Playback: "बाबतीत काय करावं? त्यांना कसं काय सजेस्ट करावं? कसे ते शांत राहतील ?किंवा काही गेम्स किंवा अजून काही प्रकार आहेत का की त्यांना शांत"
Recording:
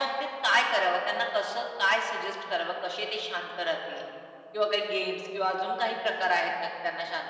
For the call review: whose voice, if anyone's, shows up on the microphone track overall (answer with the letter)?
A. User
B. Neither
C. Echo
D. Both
C